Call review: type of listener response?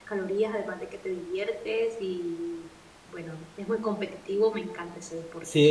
taking over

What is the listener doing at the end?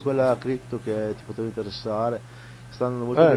listening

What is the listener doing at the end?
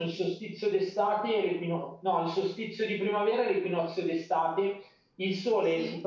listening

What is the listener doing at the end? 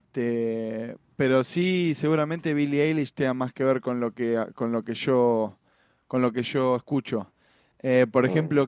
listening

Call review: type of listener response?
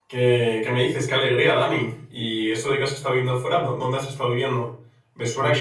listening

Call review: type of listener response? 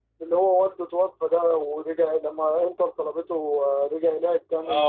taking over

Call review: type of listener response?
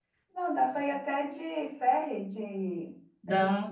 listening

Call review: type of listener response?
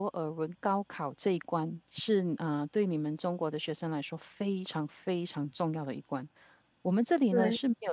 listening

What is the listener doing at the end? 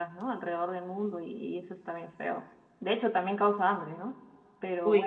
listening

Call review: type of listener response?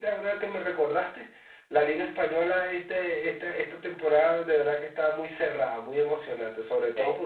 listening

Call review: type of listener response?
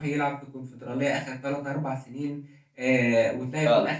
listening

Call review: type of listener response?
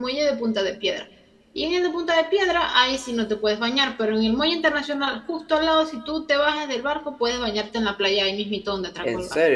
taking over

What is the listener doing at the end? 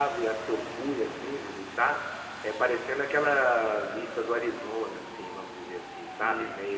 listening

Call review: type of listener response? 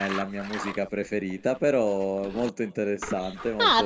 taking over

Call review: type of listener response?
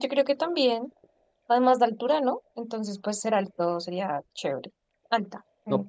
taking over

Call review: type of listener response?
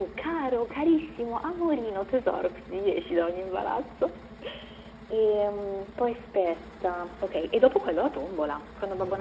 listening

